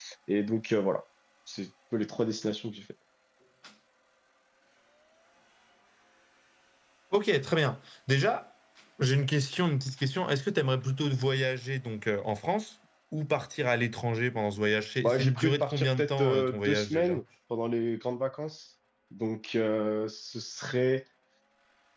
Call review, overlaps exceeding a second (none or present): present